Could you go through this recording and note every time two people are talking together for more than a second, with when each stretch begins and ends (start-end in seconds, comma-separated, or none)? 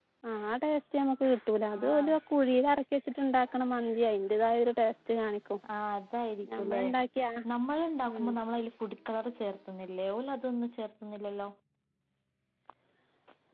none